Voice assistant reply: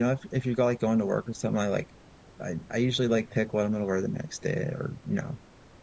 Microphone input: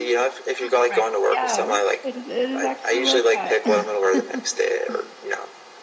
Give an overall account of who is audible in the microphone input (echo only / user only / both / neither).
both